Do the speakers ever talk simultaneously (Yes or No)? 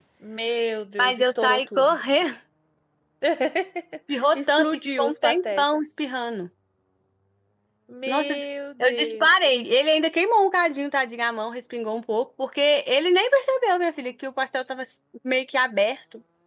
Yes